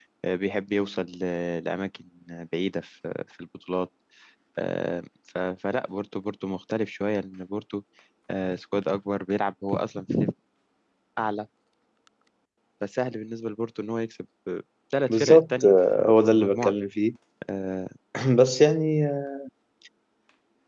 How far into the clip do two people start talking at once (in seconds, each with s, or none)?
15.1 s